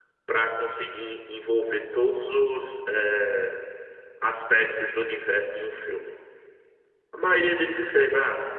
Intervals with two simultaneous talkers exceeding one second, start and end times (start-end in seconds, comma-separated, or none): none